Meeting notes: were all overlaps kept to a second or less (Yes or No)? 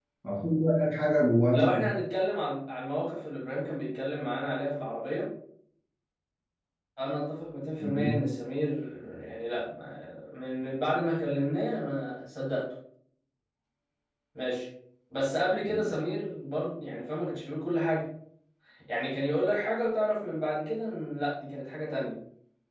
Yes